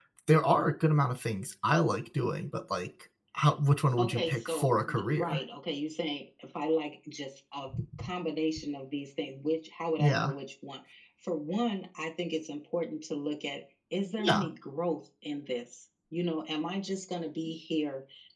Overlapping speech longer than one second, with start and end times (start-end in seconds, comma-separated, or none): 4.0-5.4